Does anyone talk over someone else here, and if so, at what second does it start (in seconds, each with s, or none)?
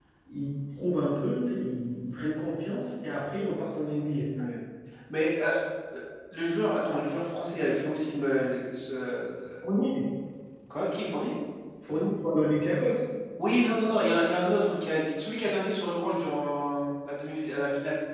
none